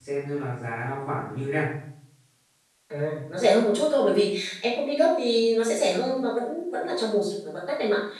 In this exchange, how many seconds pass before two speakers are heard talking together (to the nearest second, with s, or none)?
none